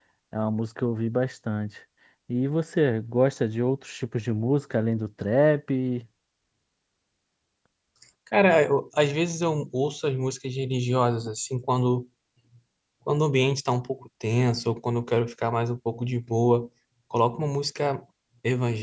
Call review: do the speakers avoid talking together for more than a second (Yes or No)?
Yes